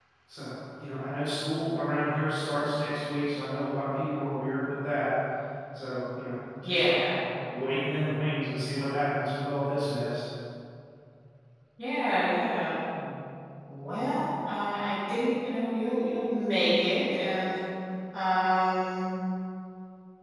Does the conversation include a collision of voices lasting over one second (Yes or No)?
No